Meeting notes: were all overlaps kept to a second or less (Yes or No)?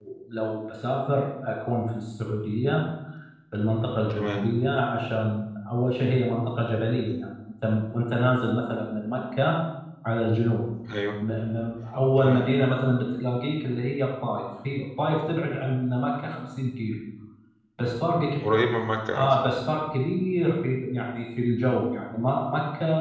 Yes